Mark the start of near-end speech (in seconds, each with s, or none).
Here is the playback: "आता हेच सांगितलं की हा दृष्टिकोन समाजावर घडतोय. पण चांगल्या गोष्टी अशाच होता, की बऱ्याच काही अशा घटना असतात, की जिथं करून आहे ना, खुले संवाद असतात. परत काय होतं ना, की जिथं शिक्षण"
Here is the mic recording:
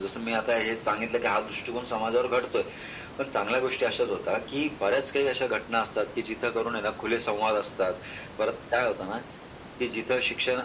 none